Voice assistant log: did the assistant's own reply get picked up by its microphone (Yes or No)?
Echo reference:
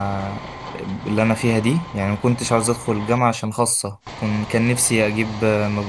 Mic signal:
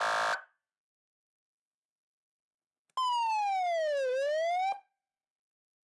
No